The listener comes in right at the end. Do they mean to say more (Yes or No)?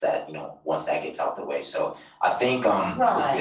Yes